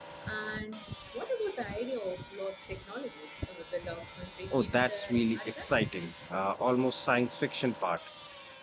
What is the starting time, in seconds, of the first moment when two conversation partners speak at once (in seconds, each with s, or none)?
4.5 s